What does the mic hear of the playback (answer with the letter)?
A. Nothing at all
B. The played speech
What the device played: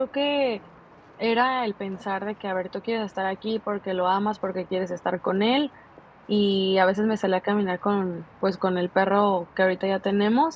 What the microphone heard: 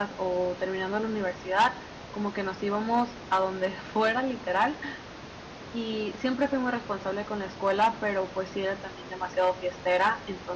A